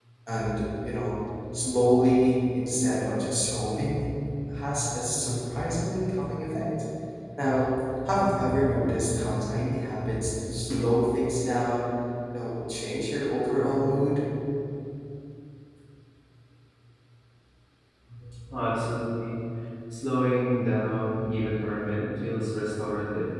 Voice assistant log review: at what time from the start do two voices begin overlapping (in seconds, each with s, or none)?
none